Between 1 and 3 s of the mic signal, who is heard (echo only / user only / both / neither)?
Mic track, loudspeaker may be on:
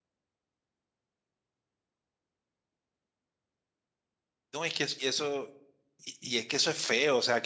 neither